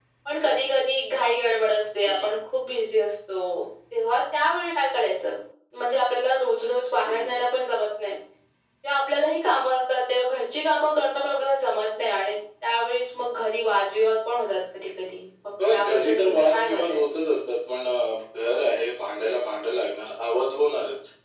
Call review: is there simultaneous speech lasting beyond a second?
Yes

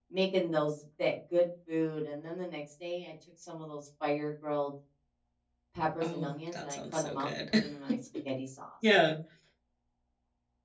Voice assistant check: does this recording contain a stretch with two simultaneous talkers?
Yes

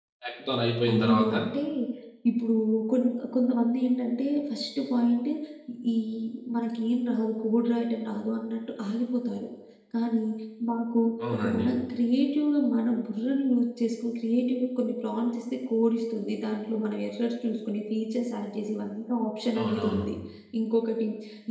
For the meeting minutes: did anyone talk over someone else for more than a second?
No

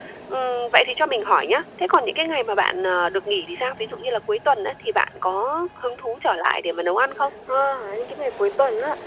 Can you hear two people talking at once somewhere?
No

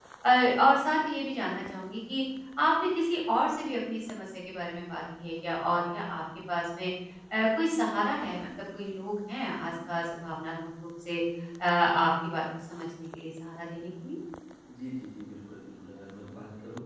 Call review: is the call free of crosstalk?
Yes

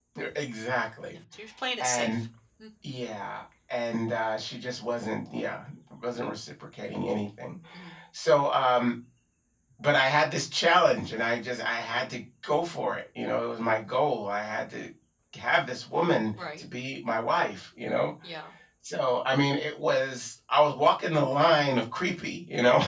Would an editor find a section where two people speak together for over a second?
No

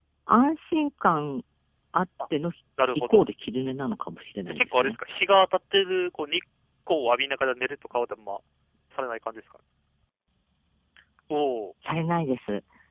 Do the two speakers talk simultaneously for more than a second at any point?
No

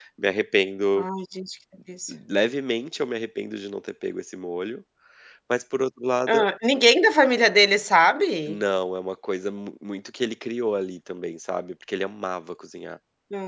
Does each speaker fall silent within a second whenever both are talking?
Yes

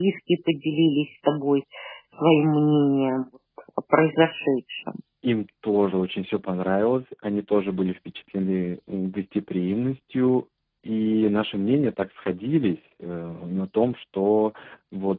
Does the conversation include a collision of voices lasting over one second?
No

